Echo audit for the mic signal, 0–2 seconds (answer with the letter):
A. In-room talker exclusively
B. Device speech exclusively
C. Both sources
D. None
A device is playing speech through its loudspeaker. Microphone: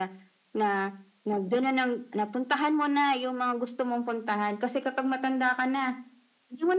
B